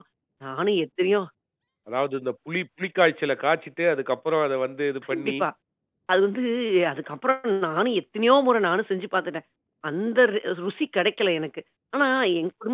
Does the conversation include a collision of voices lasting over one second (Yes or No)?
No